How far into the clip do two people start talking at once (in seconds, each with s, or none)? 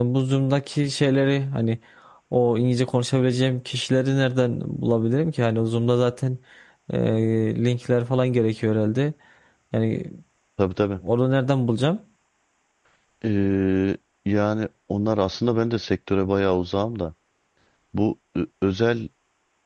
none